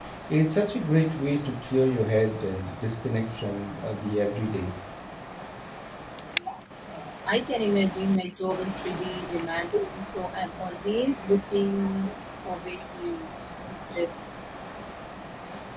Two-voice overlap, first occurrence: none

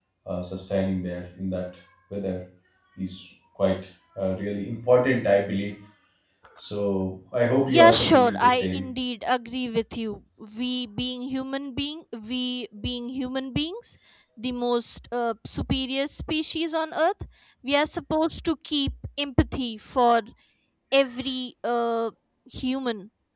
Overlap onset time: 8 s

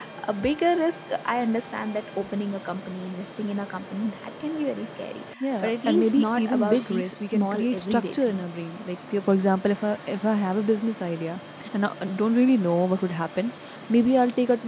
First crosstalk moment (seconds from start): 5 s

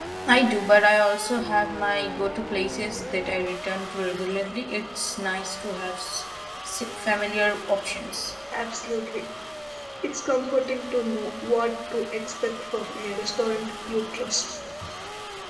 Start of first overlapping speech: none

